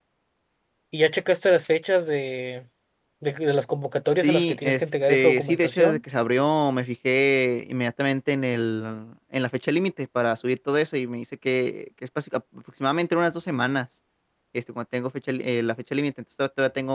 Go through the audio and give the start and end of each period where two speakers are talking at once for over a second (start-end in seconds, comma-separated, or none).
4.2-6.0